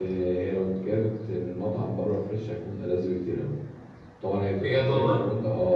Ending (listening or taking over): listening